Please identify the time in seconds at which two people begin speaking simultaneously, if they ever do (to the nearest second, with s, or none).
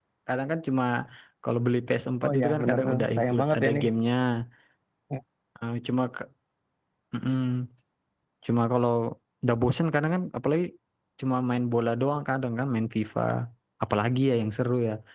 2 s